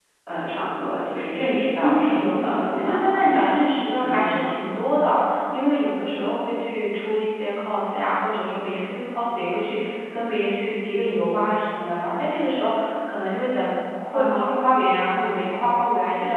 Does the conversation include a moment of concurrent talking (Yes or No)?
Yes